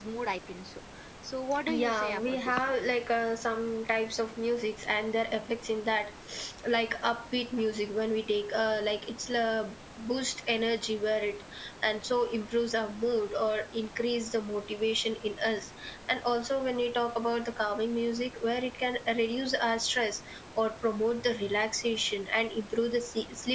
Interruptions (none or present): present